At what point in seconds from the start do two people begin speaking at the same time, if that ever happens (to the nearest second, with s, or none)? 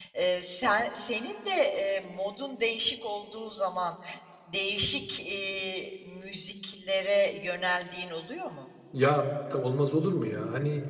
none